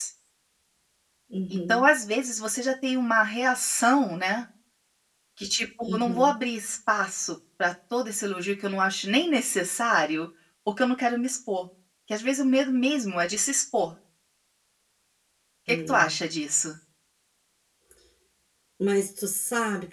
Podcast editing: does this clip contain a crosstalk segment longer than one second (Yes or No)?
No